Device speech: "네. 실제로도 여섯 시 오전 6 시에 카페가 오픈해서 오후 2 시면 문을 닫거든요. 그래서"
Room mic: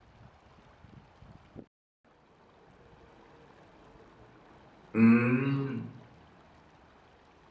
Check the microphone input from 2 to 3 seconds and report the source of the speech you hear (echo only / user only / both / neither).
neither